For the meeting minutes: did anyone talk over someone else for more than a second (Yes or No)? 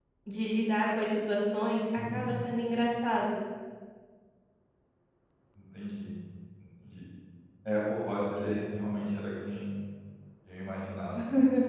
No